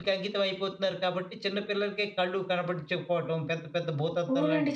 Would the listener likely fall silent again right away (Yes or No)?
No